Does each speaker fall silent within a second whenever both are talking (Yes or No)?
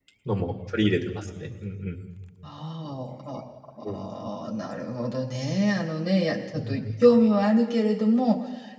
Yes